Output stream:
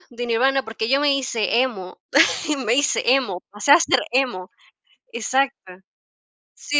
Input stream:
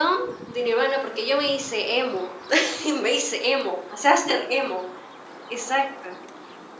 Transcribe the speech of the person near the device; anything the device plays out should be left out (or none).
none